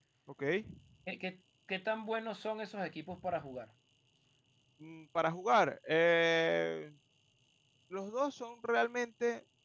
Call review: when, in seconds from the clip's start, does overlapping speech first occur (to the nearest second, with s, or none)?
none